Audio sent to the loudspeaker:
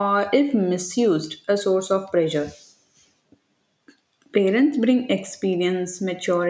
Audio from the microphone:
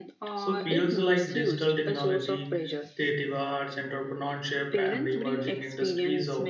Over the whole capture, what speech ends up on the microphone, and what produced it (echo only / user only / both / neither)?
both